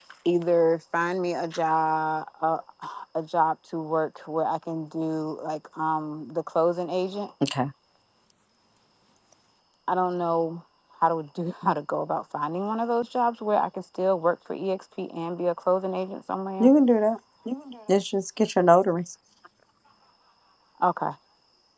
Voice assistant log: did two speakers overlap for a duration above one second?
No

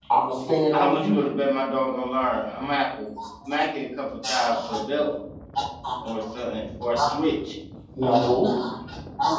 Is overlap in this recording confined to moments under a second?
Yes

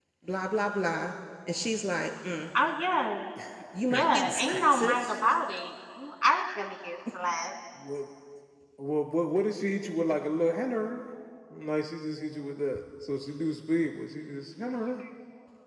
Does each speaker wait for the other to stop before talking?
No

